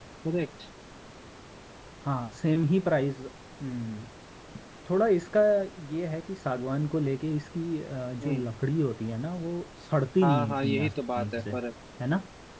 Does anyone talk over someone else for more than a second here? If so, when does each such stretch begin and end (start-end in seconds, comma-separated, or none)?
10.2-11.4